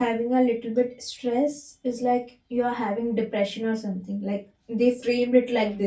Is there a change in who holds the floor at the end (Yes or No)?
Yes